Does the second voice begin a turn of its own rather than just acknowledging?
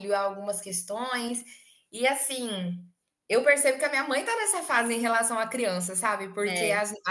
No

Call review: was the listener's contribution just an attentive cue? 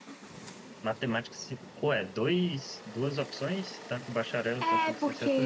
No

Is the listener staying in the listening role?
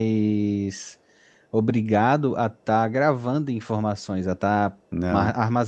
Yes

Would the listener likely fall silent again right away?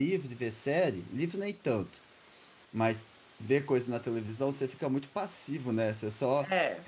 Yes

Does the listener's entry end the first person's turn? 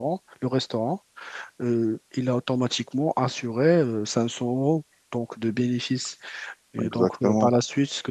No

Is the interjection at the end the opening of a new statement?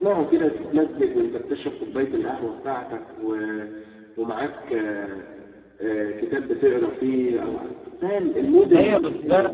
Yes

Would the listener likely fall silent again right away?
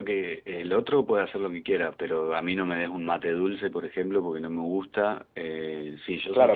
No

